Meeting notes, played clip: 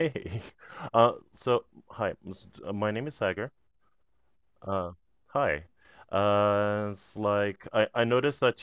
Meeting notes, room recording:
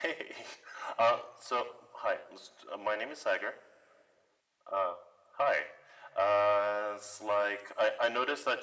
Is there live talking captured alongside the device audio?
No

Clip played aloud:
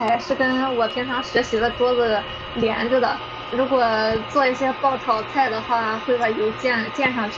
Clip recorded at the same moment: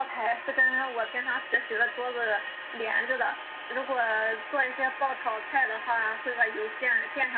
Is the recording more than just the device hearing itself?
No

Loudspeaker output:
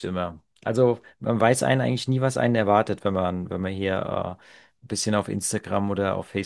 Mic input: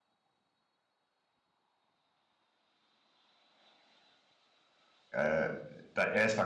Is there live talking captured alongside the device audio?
Yes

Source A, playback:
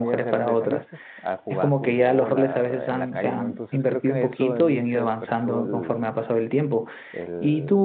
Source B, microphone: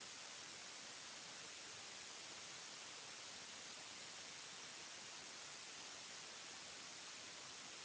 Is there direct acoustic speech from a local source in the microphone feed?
No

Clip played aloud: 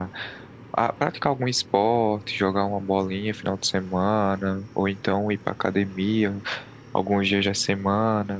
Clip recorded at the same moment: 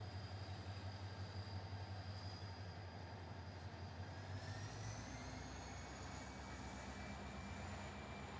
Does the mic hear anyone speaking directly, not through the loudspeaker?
No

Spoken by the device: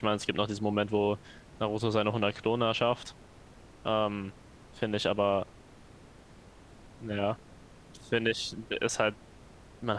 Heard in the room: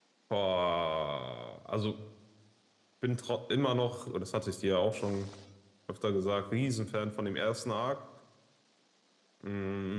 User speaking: Yes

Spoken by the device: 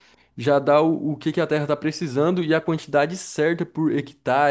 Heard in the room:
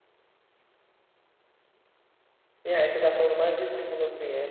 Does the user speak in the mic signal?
Yes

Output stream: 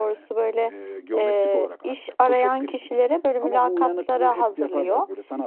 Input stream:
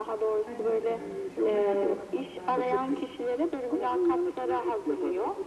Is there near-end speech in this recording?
Yes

